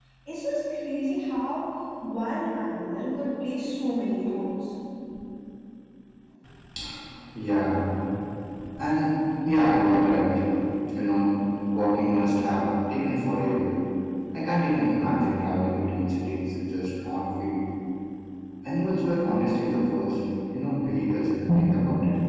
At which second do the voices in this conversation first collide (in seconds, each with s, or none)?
none